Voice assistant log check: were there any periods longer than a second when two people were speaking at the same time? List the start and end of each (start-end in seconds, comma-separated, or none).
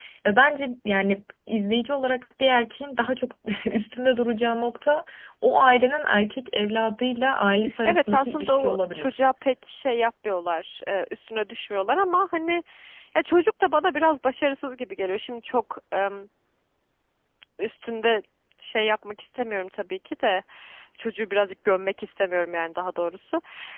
7.8-9.2